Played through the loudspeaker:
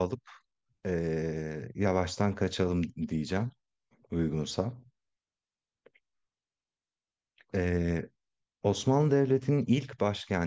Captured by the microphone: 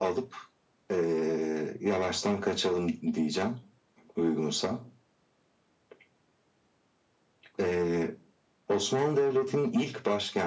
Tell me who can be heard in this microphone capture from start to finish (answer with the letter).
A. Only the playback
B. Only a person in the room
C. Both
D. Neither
A